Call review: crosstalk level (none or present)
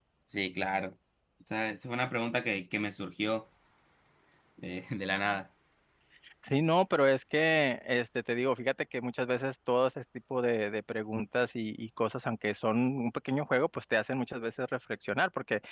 none